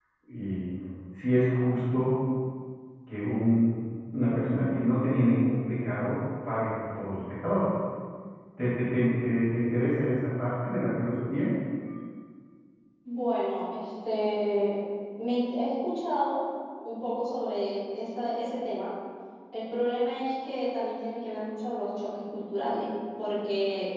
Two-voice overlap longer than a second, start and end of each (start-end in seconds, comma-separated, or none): none